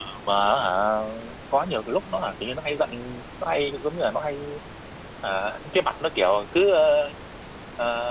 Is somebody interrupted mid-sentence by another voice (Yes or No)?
No